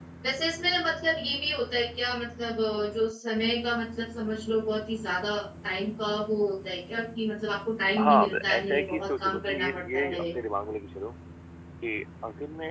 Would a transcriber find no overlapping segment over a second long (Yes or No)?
No